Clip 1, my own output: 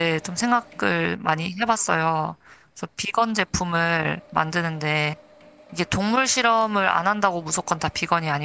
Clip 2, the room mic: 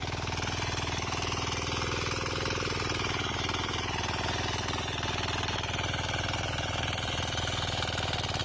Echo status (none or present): none